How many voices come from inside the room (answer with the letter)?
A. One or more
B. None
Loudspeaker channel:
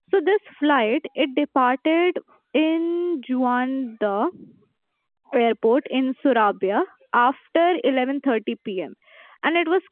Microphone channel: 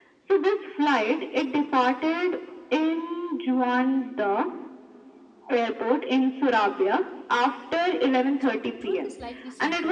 A